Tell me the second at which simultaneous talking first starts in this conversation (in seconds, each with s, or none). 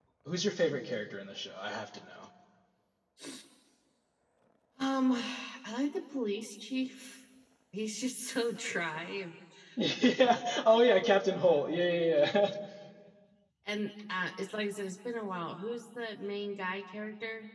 none